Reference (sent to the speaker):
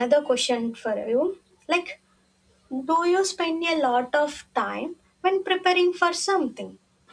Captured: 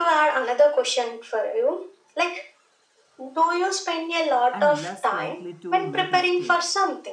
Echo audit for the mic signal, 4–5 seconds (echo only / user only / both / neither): both